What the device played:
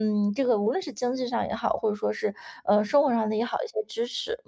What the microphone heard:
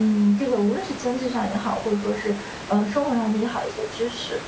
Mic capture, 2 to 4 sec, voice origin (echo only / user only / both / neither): echo only